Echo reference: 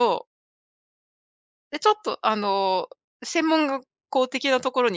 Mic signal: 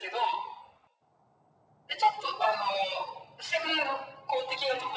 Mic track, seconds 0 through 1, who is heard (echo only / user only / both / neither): echo only